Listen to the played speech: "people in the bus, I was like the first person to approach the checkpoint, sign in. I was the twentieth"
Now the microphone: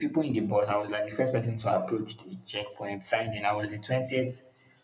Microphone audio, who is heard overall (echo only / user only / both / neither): echo only